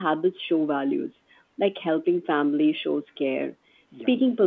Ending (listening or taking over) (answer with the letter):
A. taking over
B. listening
B